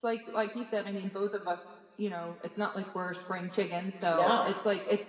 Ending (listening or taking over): listening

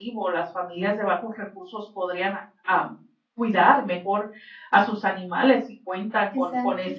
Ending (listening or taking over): listening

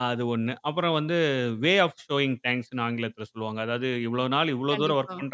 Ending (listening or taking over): listening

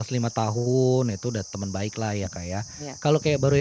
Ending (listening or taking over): listening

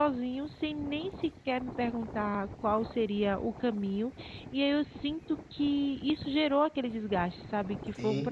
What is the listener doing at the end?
taking over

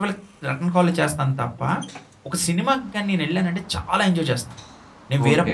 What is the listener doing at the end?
taking over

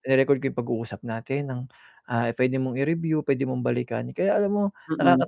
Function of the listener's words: listening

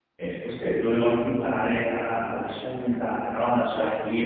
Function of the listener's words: listening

